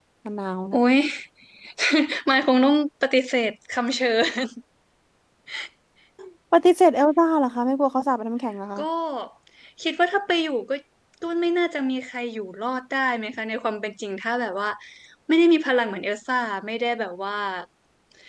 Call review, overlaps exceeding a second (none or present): none